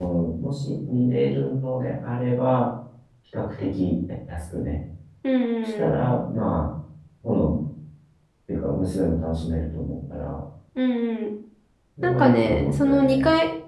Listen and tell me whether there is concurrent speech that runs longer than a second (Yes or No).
Yes